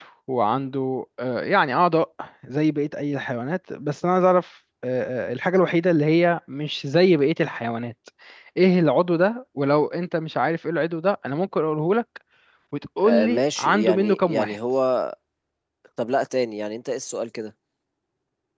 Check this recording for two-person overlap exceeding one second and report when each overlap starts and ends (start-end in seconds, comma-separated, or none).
13.1-14.6